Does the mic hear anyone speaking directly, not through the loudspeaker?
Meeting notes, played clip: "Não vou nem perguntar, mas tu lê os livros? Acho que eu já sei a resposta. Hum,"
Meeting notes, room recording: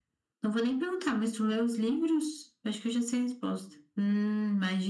No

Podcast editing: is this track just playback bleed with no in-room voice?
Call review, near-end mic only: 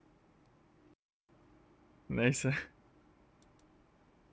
No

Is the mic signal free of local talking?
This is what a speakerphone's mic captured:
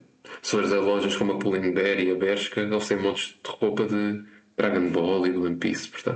Yes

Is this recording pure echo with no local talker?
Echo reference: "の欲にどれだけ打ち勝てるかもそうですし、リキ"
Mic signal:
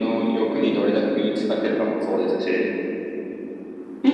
Yes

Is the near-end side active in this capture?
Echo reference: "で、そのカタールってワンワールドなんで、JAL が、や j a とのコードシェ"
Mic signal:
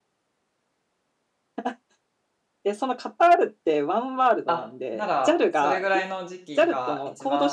Yes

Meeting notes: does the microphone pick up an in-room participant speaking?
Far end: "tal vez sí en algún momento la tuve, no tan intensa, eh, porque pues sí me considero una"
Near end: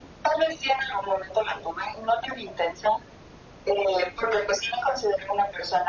No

